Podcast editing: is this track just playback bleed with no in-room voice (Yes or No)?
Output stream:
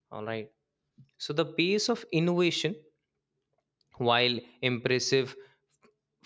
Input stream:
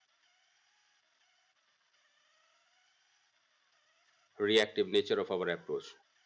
No